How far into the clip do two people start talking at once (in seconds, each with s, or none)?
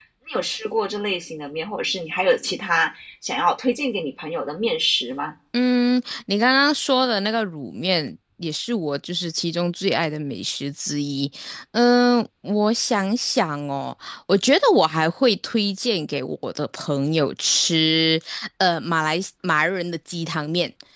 none